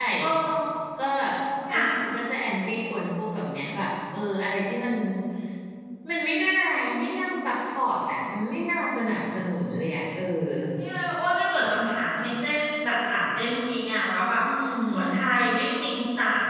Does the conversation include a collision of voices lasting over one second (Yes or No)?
No